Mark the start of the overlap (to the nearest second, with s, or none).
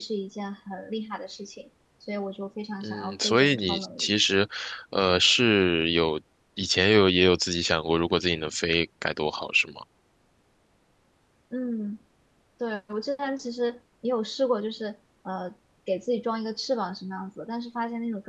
3 s